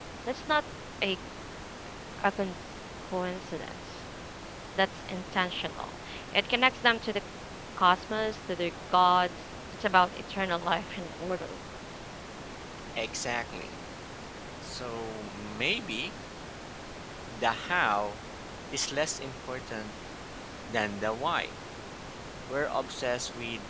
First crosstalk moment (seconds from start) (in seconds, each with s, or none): none